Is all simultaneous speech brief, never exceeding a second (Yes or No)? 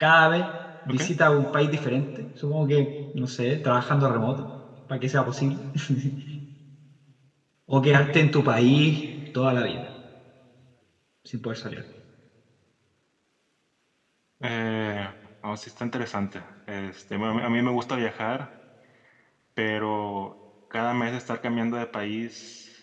Yes